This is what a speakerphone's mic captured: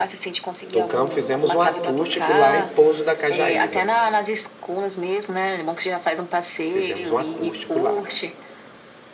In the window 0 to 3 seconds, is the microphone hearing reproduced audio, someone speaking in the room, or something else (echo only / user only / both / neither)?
both